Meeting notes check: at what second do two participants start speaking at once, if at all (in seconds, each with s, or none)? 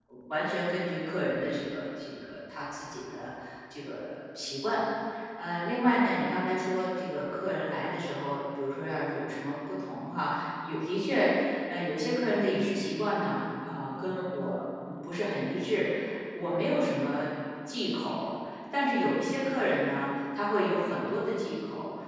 none